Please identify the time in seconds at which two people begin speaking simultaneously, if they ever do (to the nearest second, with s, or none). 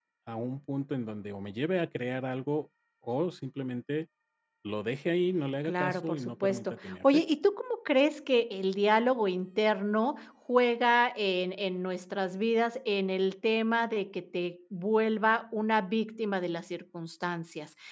6 s